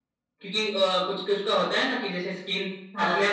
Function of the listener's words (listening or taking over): listening